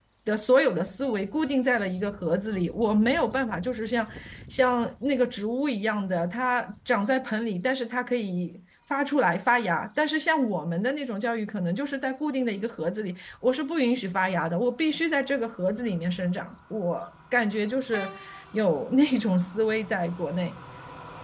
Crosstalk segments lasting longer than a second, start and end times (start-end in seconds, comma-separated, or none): none